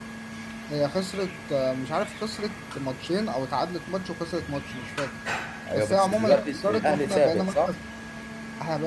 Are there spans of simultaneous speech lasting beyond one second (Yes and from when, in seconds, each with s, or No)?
Yes, from 5.7 s